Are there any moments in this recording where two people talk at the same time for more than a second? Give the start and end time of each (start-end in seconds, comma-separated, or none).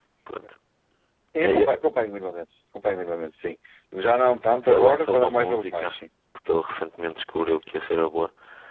4.6-6.0